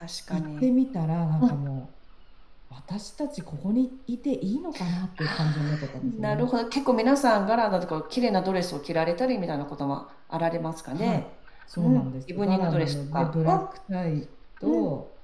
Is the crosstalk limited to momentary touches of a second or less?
No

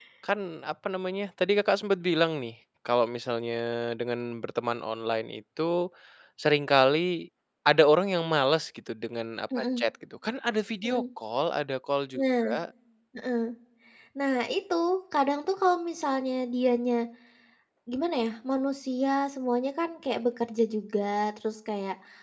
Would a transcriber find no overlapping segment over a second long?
Yes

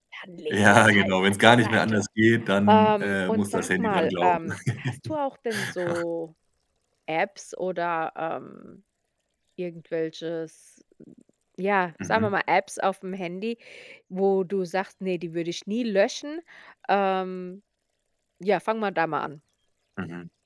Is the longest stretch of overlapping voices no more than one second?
No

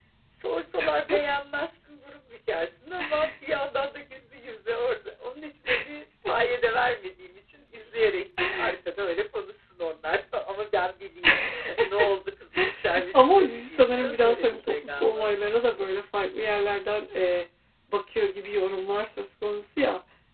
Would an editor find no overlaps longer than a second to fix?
No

